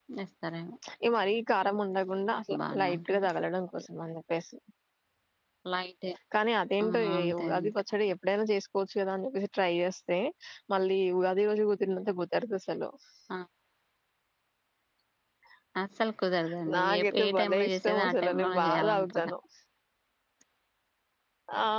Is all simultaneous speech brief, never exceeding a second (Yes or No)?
No